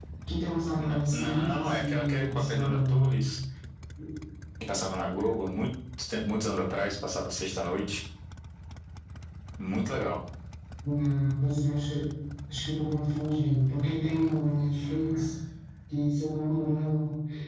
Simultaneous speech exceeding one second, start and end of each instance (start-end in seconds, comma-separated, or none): 0.8-3.0